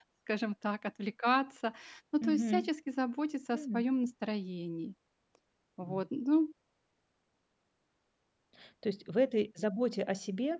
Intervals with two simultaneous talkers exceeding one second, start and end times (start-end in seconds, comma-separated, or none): none